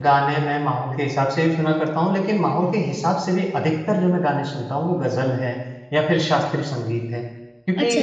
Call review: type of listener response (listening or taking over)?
listening